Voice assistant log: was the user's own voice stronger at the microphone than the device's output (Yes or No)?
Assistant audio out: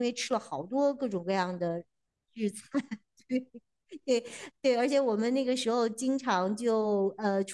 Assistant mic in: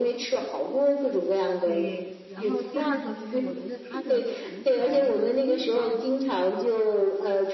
No